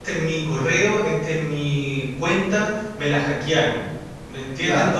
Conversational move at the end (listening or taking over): taking over